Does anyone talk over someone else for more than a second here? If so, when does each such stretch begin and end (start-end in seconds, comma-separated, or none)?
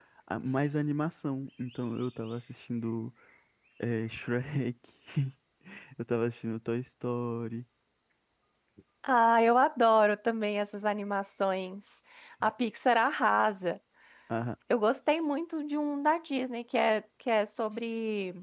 none